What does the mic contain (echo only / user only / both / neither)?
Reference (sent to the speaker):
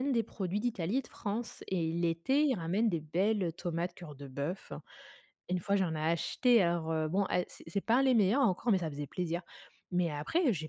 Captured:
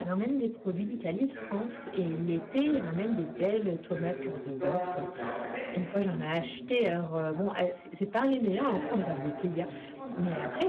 both